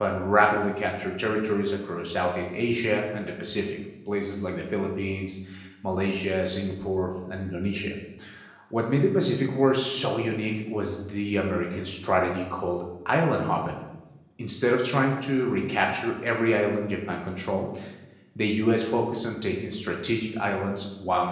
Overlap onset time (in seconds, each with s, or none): none